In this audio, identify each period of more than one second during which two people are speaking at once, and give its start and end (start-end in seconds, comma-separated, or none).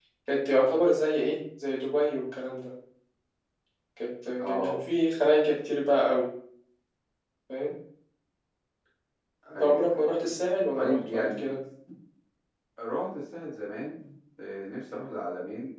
9.6-11.5